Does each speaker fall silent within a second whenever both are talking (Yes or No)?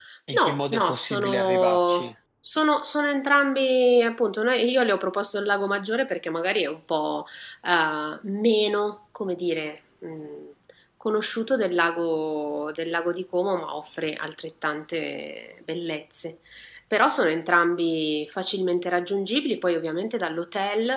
No